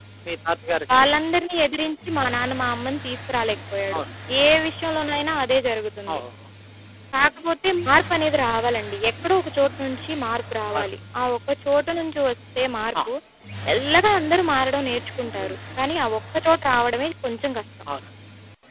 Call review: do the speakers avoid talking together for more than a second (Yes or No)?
Yes